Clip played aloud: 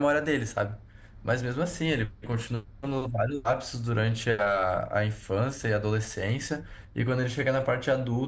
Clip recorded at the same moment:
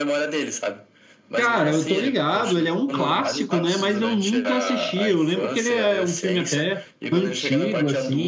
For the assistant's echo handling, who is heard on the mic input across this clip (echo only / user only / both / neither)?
both